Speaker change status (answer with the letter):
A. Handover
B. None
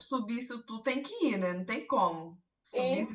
A